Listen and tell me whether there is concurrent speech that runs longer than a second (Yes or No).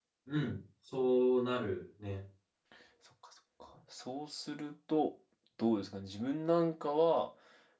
No